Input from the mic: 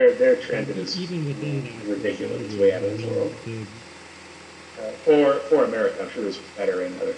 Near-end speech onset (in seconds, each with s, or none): 0.5 s